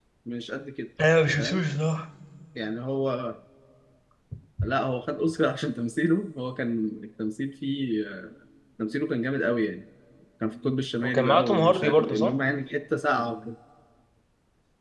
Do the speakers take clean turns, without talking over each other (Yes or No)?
No